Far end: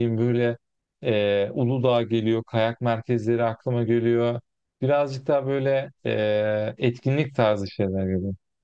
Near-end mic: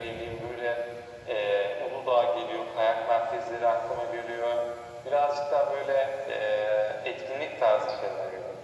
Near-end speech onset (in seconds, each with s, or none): none